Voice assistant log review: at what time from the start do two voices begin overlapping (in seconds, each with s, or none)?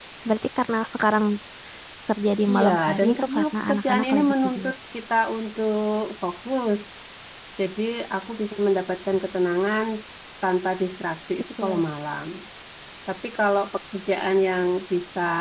2.5 s